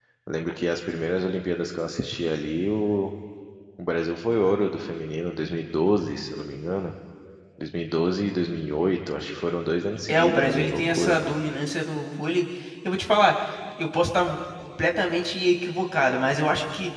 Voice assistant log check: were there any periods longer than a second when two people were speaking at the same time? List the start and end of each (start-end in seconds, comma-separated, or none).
10.1-11.3